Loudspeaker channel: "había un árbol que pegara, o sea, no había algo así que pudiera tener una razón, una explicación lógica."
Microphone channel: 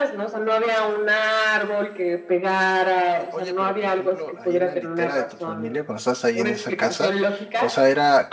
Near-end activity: present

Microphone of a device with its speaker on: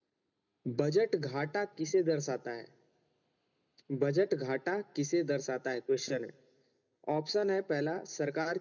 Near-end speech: none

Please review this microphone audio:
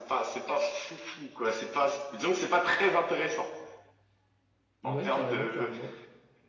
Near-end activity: present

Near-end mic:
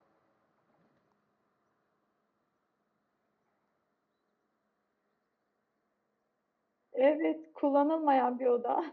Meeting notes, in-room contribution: present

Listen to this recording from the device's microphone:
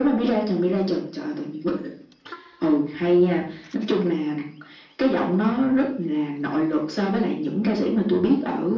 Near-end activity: none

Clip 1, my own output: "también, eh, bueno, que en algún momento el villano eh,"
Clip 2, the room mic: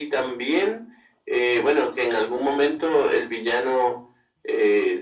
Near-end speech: none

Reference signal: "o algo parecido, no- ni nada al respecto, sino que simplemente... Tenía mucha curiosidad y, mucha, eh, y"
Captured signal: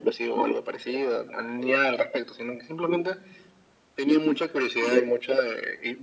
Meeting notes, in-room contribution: none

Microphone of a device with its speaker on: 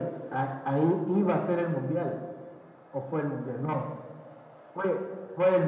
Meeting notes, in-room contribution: none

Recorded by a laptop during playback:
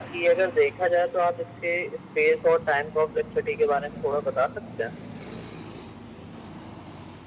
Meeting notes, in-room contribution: none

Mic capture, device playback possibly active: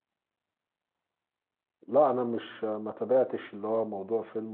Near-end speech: present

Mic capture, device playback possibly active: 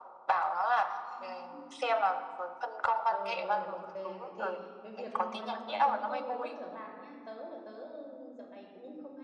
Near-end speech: present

